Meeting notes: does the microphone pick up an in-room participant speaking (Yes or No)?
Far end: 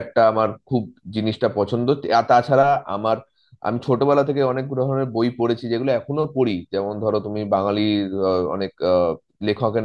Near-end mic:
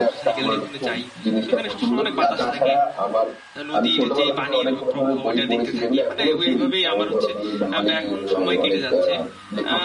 Yes